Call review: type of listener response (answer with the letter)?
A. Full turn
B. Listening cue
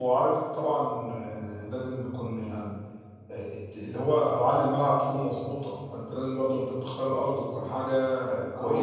A